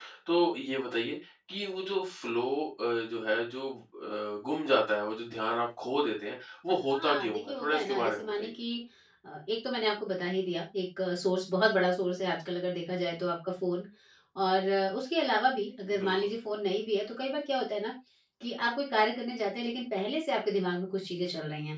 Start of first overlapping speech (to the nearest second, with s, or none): 7 s